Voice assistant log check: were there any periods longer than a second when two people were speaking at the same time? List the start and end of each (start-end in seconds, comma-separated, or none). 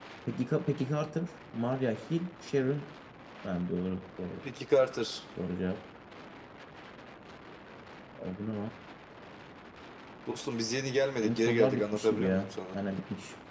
11.2-12.8